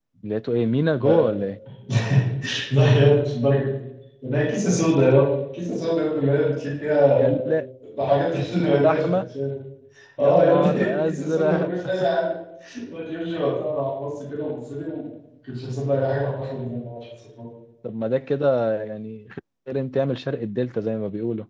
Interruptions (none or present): present